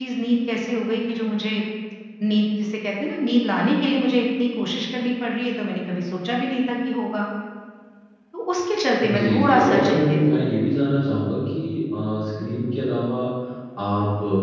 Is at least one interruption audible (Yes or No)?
Yes